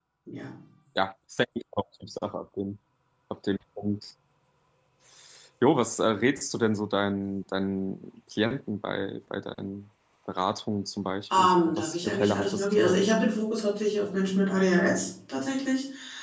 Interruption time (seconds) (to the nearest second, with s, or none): 11 s